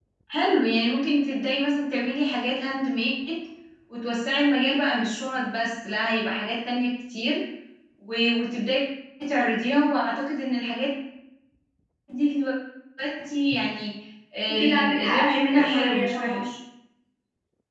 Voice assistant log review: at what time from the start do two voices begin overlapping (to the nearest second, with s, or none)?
14 s